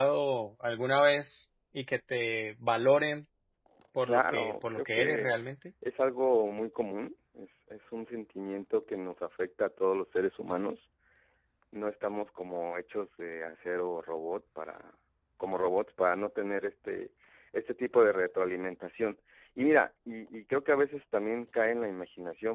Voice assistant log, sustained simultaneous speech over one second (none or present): present